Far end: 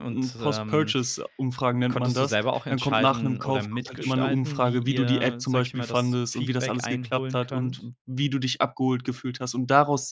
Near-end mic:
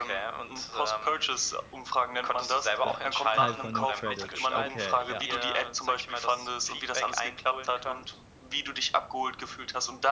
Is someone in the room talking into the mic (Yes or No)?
Yes